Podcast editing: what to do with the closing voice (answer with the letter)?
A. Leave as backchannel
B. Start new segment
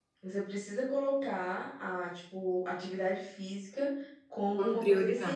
A